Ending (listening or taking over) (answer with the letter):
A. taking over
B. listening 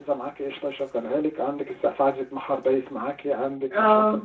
A